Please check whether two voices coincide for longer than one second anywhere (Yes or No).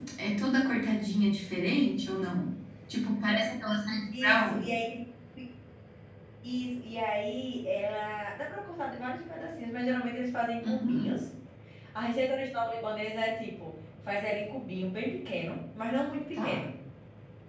No